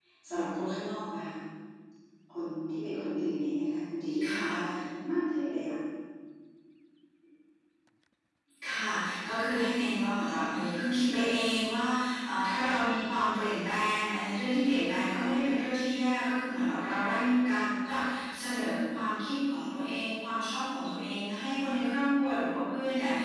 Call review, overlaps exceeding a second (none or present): none